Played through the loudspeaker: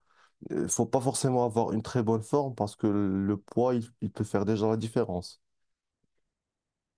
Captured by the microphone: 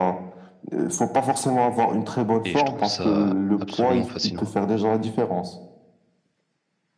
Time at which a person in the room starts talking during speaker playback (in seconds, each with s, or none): 2.4 s